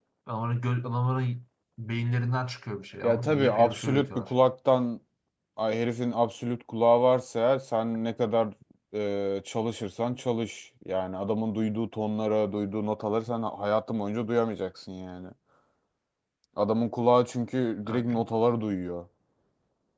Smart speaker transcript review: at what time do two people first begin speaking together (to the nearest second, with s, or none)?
3 s